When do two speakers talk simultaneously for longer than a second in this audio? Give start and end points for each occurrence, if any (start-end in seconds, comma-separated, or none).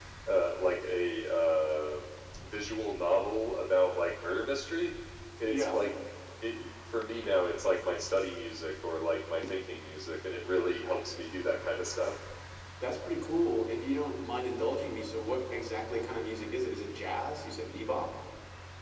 none